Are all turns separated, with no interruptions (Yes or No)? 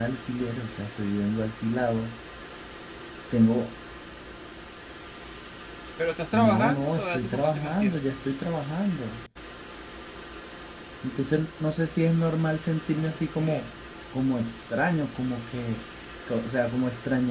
No